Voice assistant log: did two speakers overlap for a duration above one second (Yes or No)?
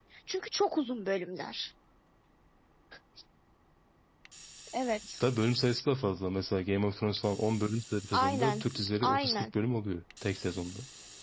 No